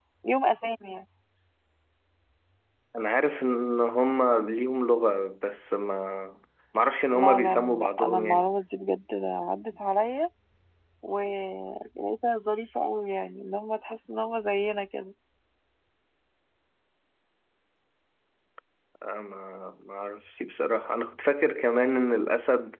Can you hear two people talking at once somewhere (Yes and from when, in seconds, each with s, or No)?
Yes, from 7.1 s